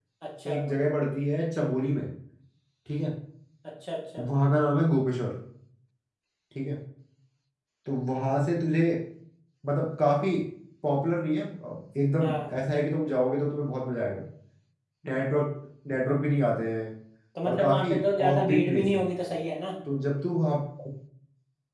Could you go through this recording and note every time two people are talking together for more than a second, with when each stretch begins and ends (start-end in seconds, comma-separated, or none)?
17.5-19.0